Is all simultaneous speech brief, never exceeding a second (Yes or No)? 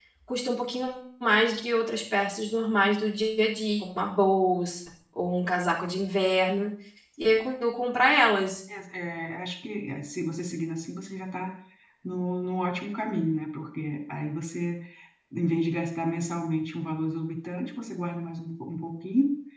Yes